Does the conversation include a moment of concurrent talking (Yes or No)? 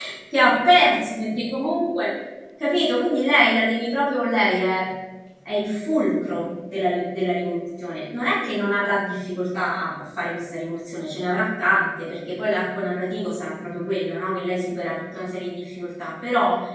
No